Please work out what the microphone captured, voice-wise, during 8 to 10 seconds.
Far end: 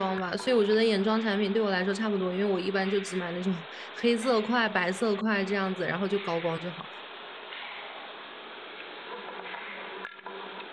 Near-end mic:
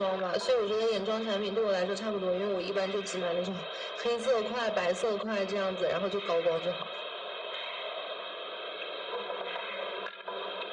neither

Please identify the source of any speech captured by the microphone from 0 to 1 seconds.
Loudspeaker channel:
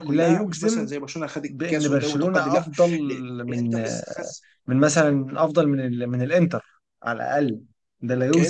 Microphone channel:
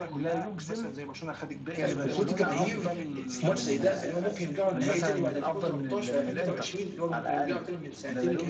echo only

